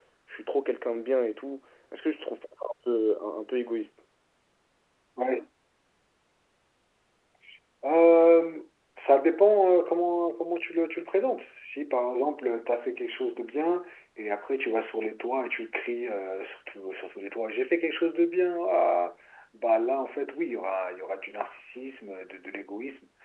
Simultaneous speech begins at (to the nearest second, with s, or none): none